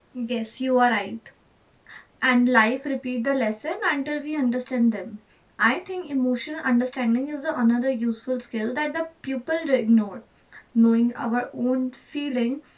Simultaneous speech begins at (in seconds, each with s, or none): none